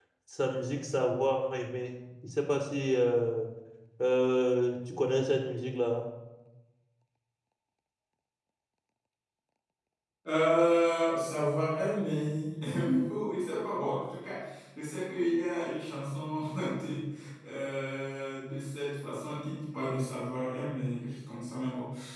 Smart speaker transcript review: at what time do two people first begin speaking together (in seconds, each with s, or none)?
none